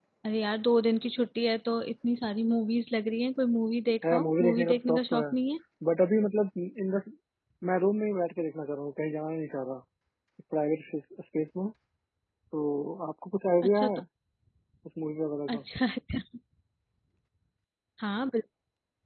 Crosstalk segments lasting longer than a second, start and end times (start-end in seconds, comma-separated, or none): 4.0-5.2